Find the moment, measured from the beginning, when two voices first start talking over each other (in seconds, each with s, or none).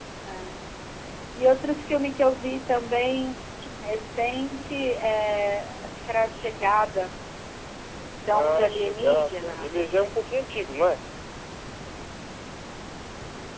8.3 s